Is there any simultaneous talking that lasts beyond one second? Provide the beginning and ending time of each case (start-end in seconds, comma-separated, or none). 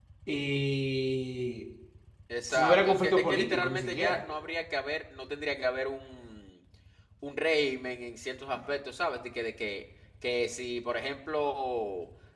2.5-4.2